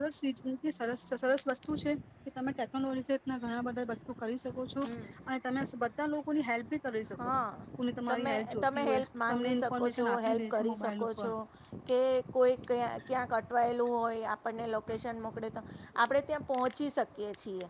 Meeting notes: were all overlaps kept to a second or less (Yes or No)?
No